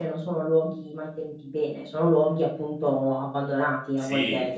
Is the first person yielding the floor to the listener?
Yes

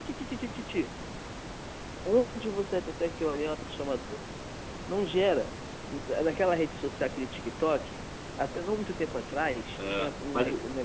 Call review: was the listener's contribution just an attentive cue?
Yes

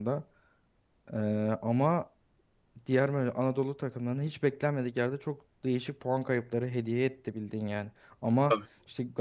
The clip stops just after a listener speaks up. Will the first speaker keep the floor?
Yes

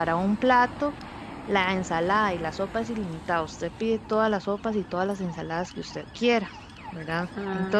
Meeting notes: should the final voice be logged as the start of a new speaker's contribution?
Yes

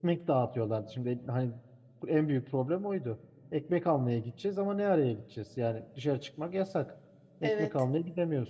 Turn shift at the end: No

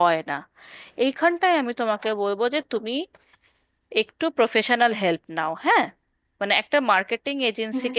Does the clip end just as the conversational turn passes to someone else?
No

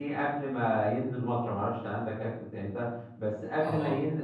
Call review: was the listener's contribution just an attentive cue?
Yes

